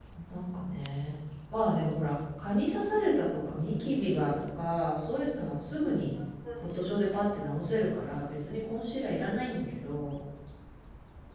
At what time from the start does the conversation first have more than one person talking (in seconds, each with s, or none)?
none